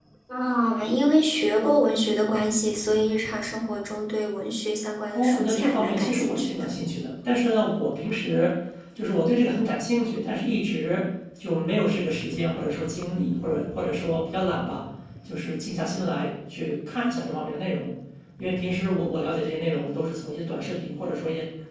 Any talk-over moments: Yes, from 5.1 s

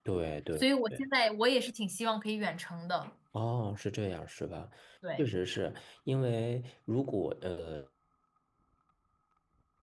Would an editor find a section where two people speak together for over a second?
No

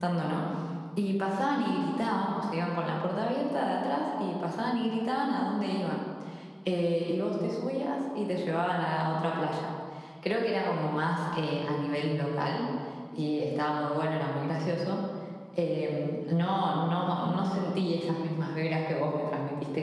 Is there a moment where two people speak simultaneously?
No

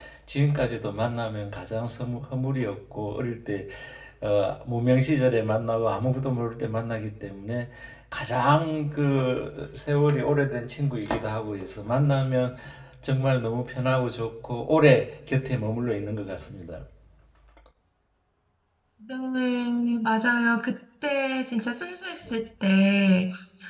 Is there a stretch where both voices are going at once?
No

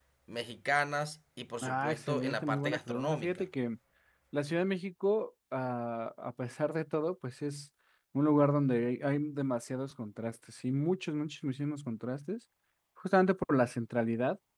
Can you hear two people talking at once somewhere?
Yes, from 1.6 s

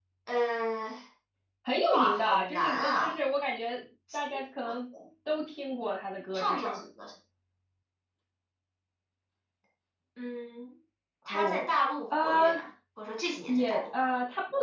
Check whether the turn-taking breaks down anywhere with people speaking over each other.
Yes, from 1.9 s

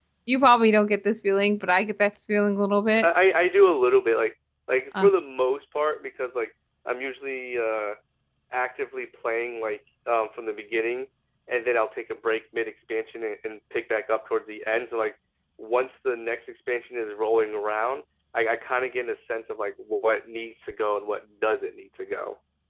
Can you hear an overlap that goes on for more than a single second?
No

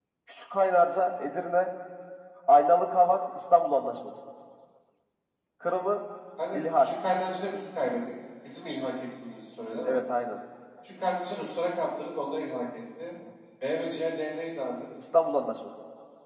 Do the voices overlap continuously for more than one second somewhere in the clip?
No

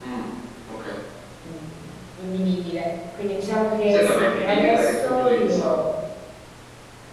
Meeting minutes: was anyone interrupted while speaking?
Yes, from 3.9 s

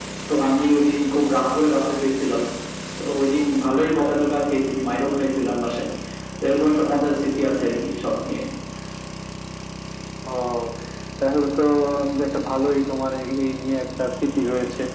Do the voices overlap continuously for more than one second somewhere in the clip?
No

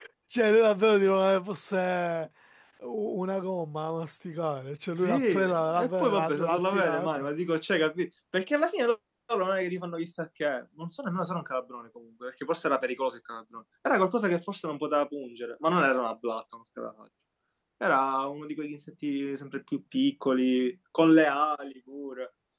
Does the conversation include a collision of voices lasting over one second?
Yes, from 5.0 s

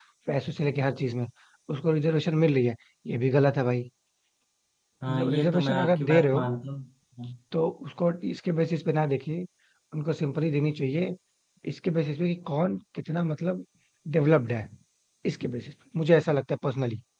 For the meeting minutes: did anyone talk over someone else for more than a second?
Yes, from 5.1 s

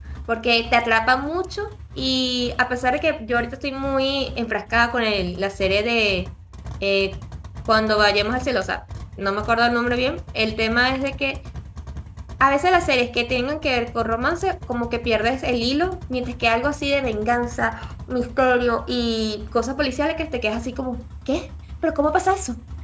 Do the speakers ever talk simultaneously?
No

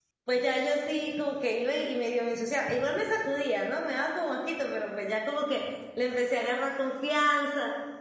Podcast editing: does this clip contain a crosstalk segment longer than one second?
No

